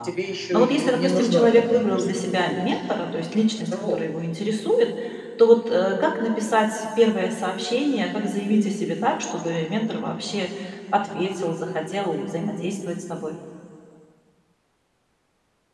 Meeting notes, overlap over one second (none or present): present